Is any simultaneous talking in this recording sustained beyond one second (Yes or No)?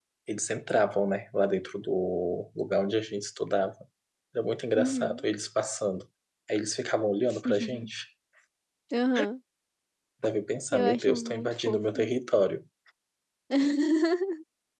Yes